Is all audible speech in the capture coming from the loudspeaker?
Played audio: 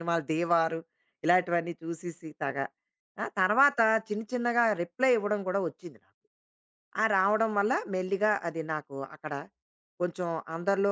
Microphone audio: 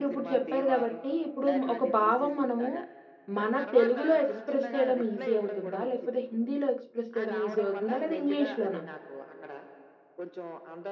No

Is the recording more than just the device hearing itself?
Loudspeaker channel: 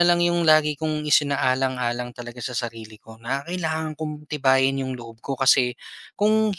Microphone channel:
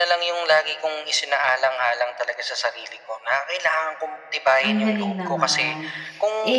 Yes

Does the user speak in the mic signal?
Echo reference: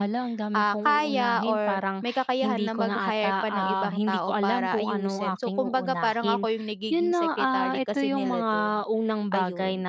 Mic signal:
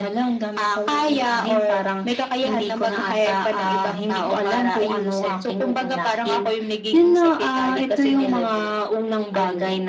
Yes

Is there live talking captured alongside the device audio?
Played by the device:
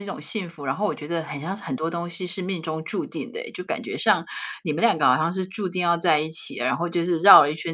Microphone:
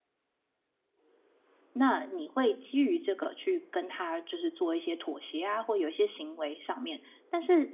Yes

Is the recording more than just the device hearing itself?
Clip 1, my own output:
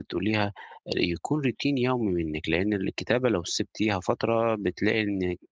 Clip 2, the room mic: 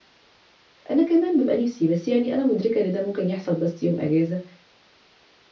Yes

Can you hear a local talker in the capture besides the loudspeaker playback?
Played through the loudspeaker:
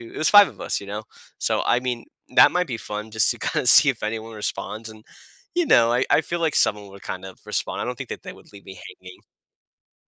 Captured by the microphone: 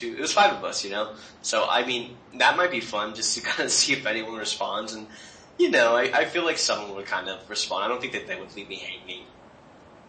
No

